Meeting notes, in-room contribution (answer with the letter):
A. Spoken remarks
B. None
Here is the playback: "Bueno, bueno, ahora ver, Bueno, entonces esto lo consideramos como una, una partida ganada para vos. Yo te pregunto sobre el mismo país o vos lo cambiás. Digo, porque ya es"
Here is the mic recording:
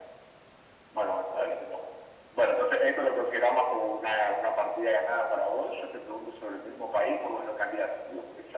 B